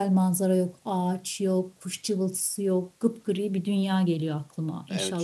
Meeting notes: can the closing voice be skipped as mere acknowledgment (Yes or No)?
No